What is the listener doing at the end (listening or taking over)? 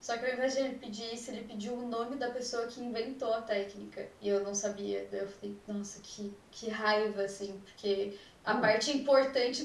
listening